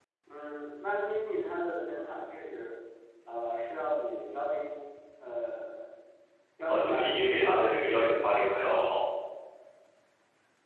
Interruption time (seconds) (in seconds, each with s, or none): 6.7 s